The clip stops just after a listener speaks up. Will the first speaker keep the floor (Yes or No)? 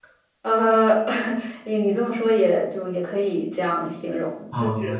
No